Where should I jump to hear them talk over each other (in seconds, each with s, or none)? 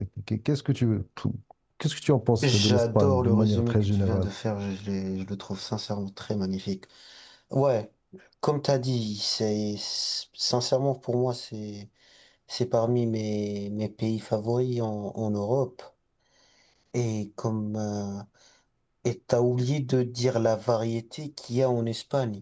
2.4 s